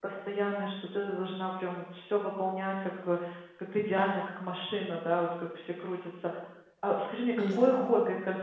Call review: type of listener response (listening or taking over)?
listening